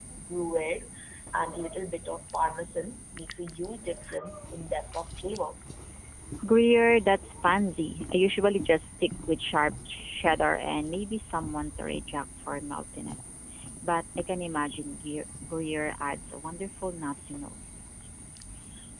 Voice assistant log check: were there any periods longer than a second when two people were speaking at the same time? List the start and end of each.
none

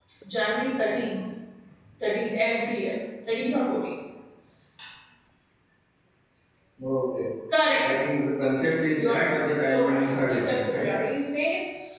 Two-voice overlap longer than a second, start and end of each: 9.0-11.0

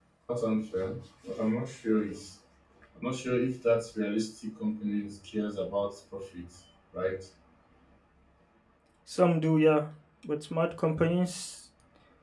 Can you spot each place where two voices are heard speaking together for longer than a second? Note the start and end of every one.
none

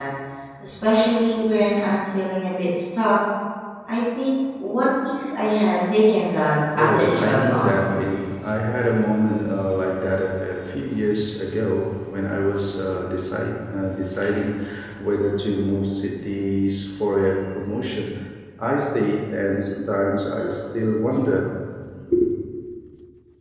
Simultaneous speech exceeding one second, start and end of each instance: 6.8-8.0

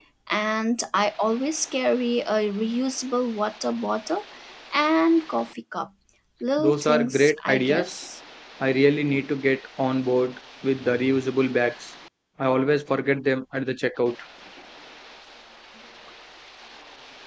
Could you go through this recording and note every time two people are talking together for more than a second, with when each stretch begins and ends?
6.6-8.0

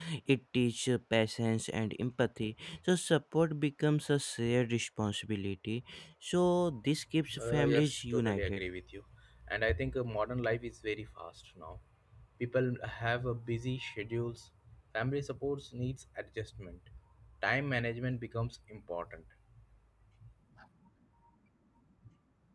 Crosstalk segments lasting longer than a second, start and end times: 7.4-8.6

